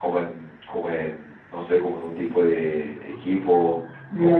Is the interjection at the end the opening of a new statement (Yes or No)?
Yes